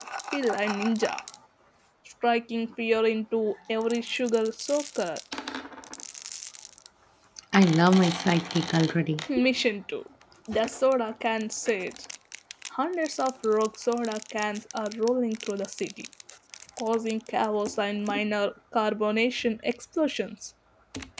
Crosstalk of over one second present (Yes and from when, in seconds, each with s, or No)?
No